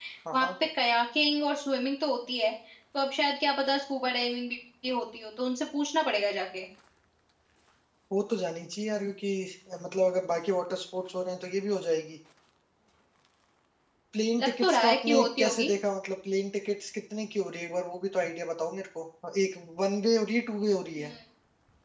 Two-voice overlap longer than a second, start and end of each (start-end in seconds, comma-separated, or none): 14.4-15.7